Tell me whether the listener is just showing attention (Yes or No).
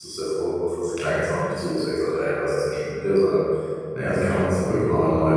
Yes